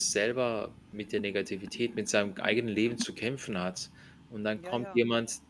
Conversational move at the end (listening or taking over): listening